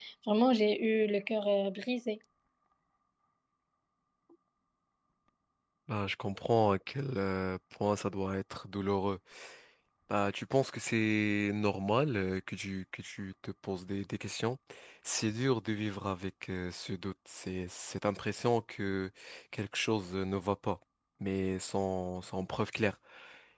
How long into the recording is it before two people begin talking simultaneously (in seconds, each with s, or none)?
none